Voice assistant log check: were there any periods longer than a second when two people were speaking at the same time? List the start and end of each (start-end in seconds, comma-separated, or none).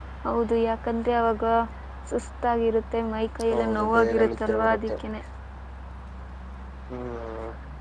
3.5-4.9